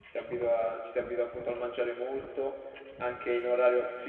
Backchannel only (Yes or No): Yes